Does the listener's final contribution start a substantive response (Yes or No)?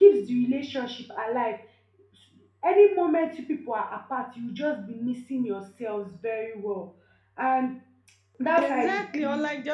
Yes